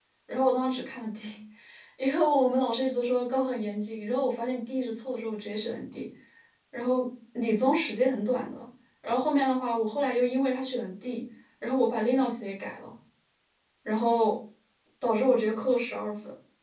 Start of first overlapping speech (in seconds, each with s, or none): none